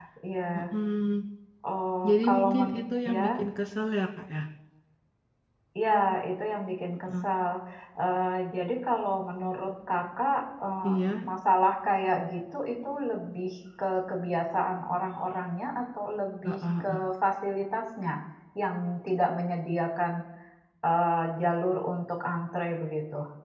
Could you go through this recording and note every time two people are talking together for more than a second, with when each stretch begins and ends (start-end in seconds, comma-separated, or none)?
2.1-3.3